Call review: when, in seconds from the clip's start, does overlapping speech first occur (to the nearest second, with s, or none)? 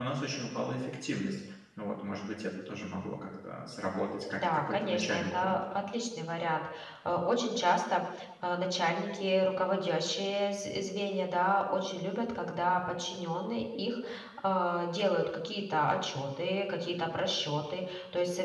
4 s